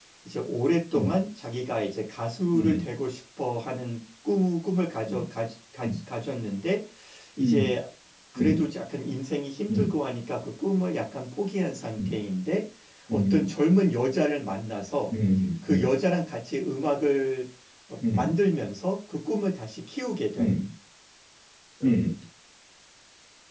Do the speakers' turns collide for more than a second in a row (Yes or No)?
No